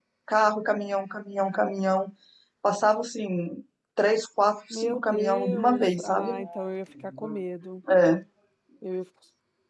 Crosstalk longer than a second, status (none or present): present